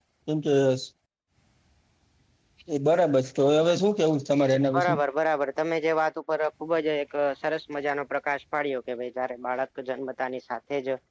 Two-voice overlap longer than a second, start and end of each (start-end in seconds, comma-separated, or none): none